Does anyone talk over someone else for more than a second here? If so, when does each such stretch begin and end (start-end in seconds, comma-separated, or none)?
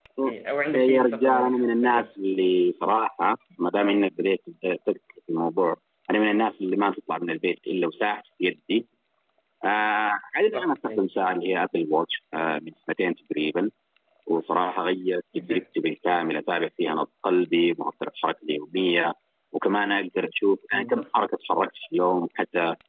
0.8-2.1